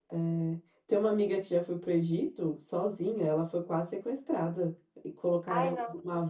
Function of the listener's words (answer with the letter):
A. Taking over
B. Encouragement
B